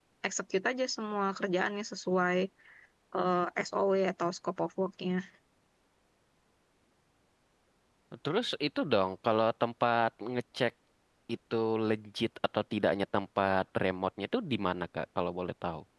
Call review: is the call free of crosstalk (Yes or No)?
Yes